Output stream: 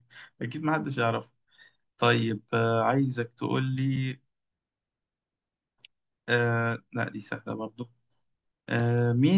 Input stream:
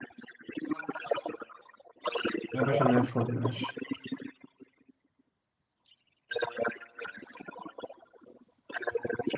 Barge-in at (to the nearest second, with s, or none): 3 s